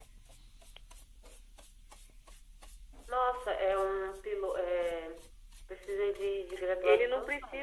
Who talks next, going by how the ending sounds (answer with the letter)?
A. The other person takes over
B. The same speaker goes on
A